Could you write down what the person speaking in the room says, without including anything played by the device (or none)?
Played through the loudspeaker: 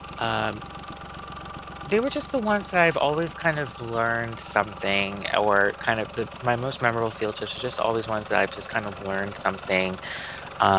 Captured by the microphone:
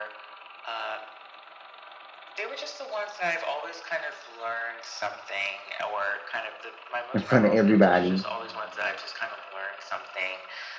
in front of everybody.